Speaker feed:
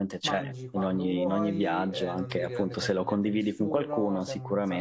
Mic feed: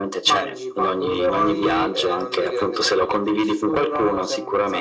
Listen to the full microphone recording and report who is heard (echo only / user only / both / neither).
echo only